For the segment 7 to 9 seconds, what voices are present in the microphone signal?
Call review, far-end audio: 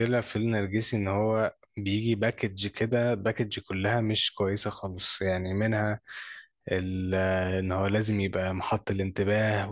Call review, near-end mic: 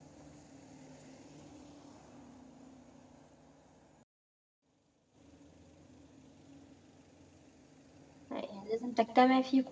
user only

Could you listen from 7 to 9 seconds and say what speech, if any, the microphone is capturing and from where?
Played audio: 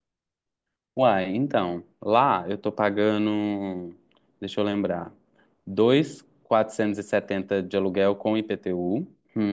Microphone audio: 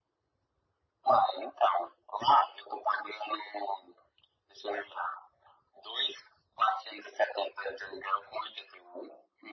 echo only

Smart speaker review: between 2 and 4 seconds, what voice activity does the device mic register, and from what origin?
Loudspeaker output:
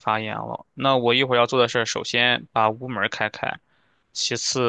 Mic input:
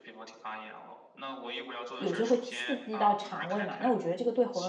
both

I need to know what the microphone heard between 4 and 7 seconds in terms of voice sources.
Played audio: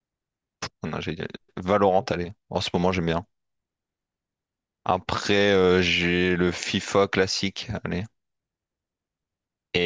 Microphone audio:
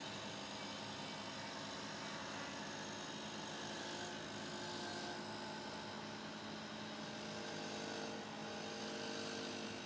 neither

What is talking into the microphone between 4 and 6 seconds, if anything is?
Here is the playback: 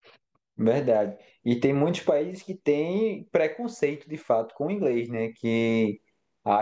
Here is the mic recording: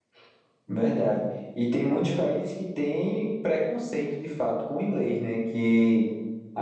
echo only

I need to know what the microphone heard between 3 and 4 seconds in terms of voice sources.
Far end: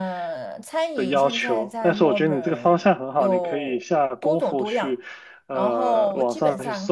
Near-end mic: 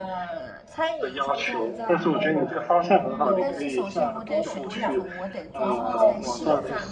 both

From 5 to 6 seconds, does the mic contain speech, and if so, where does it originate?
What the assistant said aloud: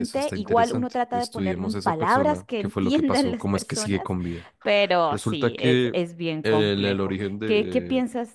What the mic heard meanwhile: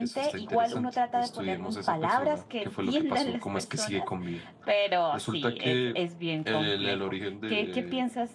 echo only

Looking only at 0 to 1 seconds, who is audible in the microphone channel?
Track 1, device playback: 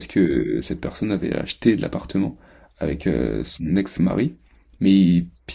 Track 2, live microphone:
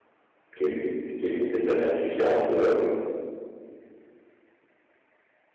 user only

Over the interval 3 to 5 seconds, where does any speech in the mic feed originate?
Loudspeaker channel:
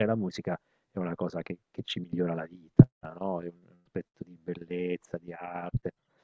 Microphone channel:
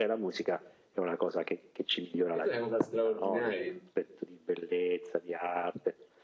both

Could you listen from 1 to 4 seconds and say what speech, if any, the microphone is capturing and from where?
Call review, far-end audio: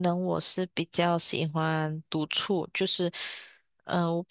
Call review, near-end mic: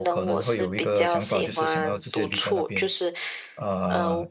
both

